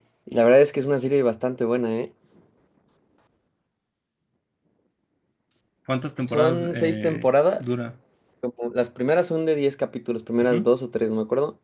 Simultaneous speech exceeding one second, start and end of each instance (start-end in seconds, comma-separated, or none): 6.3-7.6